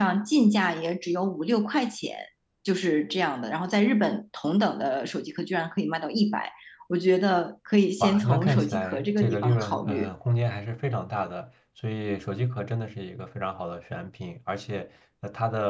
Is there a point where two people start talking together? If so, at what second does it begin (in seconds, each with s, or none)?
8.0 s